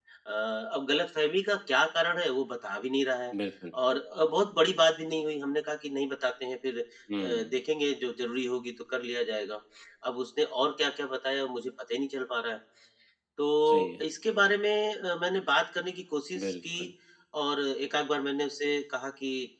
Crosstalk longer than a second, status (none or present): none